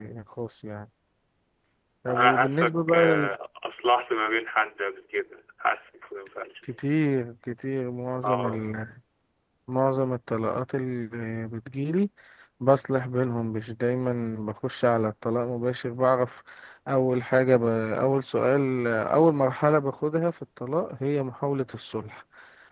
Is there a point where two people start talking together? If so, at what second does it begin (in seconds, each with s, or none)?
2.1 s